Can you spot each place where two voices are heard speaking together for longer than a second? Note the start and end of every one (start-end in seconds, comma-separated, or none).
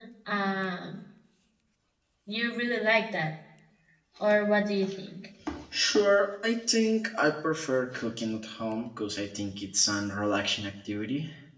none